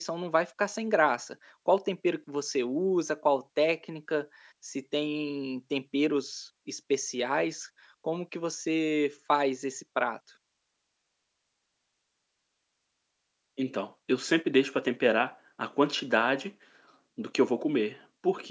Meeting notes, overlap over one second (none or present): none